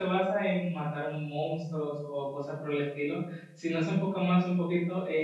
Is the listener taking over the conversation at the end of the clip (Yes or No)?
No